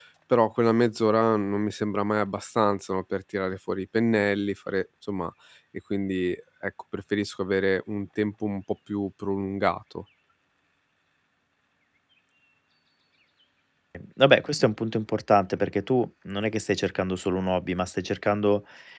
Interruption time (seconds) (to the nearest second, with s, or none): none